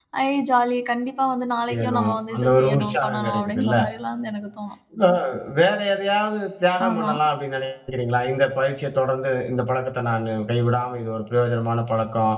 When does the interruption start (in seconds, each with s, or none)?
1.7 s